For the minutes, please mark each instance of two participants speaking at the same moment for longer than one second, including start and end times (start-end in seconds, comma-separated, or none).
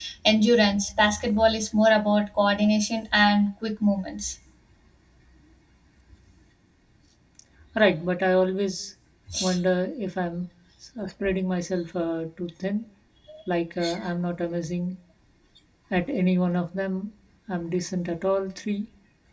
none